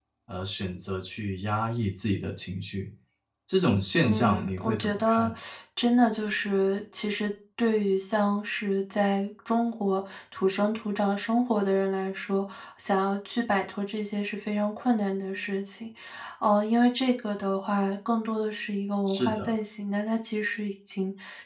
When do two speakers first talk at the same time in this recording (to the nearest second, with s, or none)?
4 s